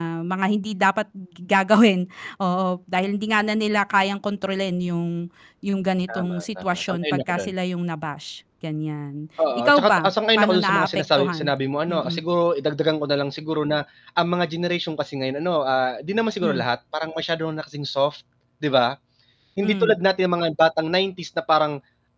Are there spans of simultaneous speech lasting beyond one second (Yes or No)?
Yes